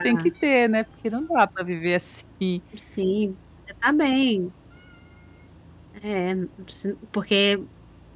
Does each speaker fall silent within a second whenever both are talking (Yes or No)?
Yes